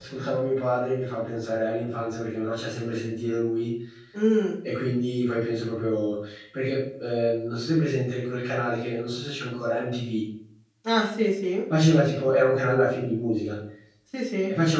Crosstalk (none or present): none